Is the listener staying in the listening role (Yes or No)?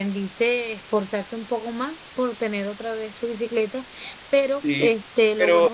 No